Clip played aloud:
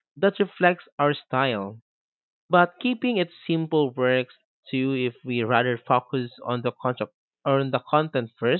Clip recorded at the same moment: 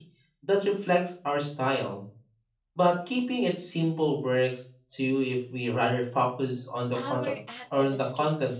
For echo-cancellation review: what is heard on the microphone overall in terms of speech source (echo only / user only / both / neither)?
both